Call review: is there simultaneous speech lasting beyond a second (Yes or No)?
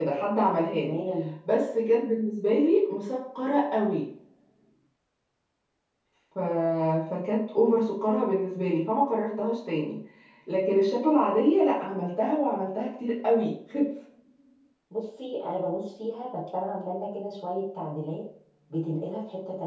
No